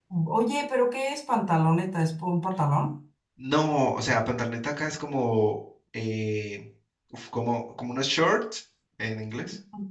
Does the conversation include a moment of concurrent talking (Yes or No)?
No